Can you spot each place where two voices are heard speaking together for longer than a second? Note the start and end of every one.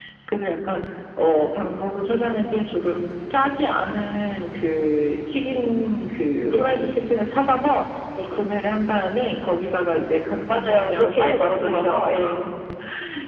10.5-12.1

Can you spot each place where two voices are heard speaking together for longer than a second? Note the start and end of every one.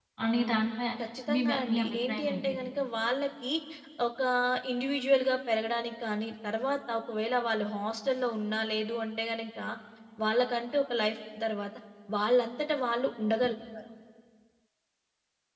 1.3-2.5

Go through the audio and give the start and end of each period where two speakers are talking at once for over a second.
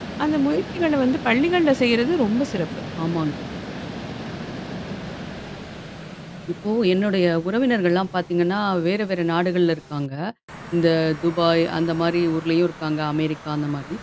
none

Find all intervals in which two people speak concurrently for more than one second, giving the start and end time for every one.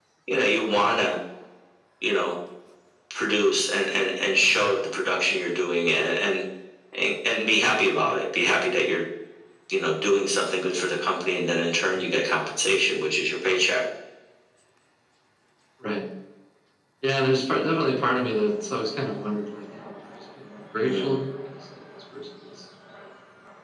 none

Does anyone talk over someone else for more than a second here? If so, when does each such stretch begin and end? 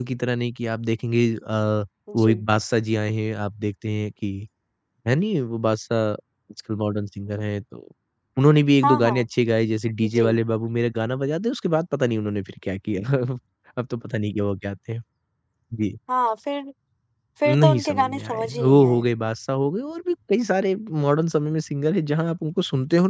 17.5-19.0

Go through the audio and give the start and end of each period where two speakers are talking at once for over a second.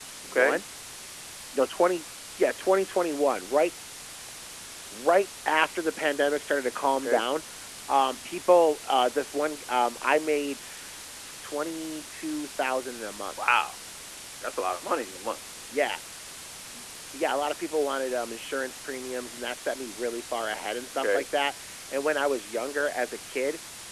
none

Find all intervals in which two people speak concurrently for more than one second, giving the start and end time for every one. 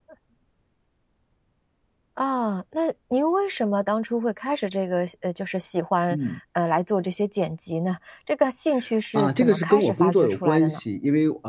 9.2-10.8

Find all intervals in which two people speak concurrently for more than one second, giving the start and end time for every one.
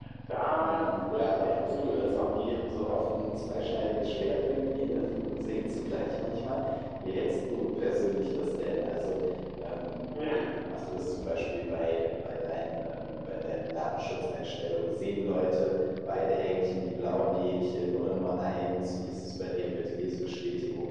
0.6-3.1

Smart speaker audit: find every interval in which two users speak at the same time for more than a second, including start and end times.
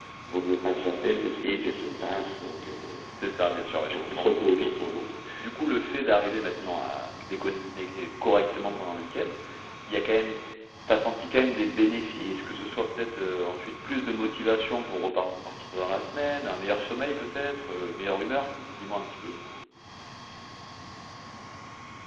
3.4-4.7

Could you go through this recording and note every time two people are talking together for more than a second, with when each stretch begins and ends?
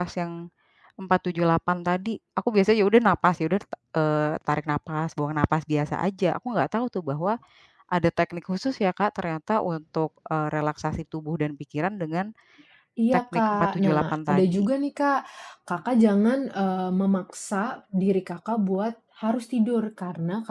13.1-14.7

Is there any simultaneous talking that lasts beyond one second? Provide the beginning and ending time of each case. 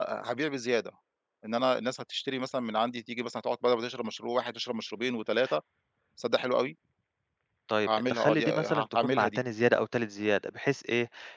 7.8-9.4

